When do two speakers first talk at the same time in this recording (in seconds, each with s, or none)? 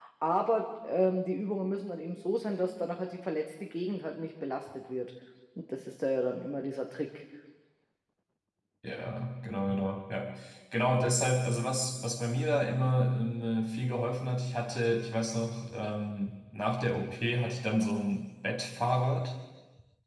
none